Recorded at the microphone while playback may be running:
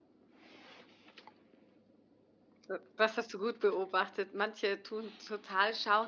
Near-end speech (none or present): present